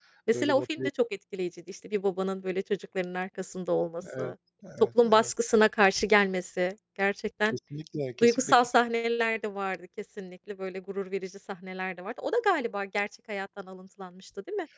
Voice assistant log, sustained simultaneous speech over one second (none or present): none